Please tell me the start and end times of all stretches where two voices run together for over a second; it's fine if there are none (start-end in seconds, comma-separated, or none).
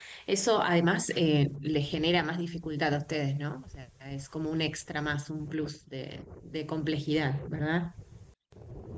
none